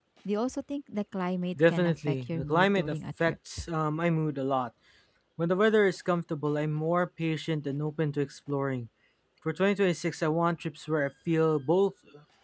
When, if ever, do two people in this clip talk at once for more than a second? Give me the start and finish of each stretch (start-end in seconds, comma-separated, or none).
1.7-3.3